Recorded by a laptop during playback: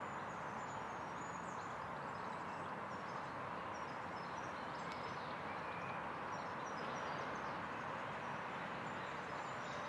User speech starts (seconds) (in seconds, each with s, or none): none